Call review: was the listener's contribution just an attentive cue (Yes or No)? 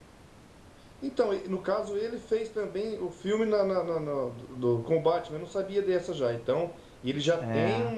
Yes